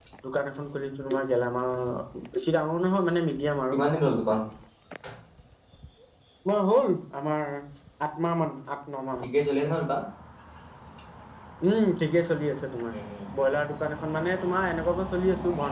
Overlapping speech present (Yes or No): No